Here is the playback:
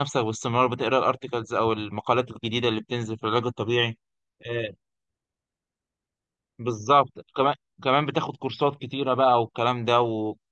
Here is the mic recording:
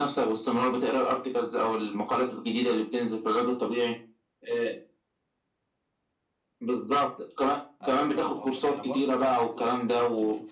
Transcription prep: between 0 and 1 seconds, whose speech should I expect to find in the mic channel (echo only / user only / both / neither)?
echo only